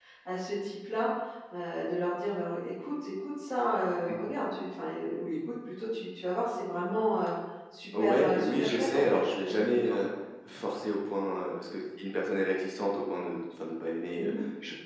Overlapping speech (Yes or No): Yes